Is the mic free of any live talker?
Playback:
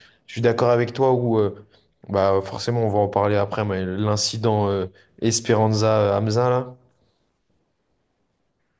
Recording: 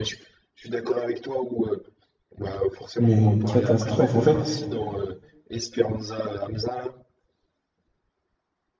No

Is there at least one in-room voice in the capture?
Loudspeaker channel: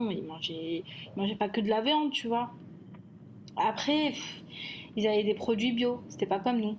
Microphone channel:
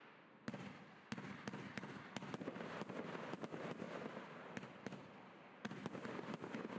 No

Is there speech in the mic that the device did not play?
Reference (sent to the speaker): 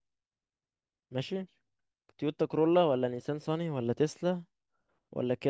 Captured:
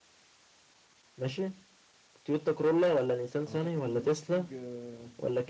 Yes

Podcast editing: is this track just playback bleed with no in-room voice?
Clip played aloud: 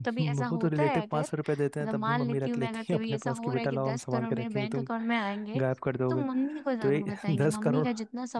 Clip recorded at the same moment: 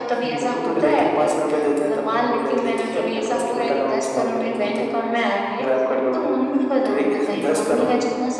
Yes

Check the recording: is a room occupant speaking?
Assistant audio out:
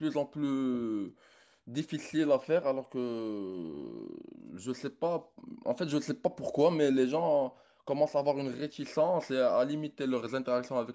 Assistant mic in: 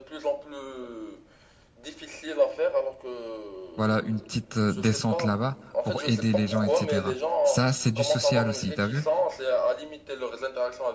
Yes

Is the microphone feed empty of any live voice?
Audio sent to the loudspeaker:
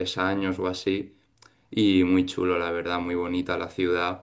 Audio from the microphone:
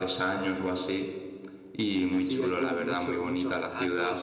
No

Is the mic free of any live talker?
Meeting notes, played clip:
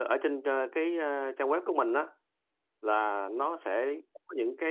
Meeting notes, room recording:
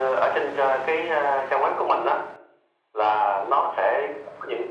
Yes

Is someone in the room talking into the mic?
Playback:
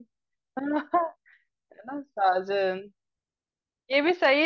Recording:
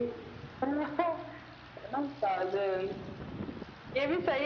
No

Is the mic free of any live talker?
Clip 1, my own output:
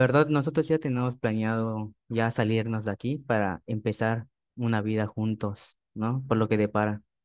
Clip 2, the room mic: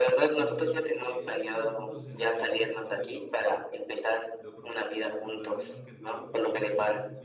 No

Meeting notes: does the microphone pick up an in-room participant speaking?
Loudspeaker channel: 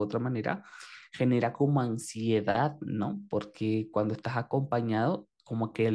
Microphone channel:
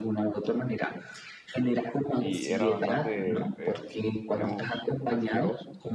Yes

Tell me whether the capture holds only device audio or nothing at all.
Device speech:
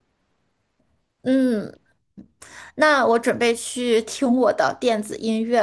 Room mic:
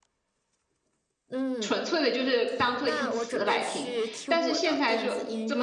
No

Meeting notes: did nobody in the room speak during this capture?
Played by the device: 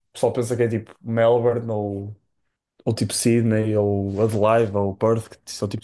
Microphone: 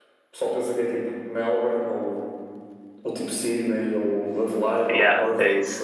No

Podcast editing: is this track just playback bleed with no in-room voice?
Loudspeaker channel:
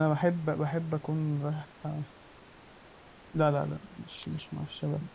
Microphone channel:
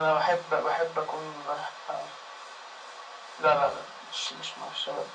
Yes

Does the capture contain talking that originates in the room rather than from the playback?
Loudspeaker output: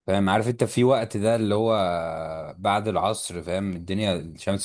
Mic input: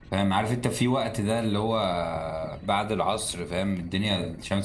No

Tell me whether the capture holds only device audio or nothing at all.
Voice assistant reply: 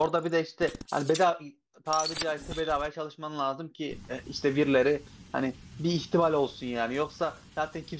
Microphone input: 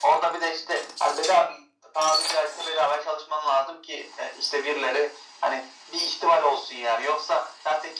Yes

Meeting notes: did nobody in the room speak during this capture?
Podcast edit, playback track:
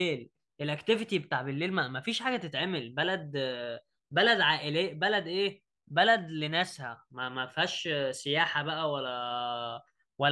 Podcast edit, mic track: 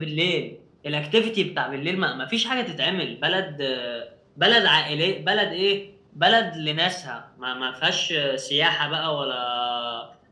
Yes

